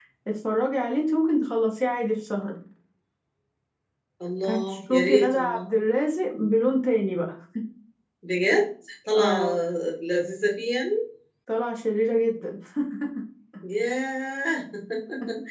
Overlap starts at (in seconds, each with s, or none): 4.5 s